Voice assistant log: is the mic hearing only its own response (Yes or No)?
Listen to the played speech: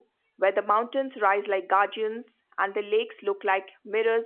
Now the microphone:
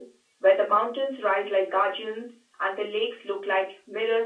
Yes